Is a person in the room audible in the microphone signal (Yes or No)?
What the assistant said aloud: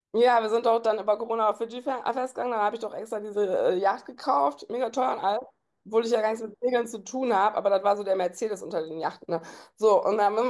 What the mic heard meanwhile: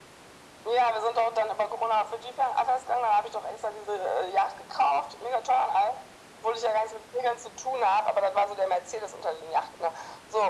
No